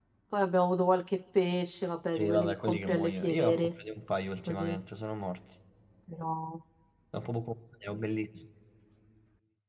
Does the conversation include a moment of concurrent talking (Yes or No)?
Yes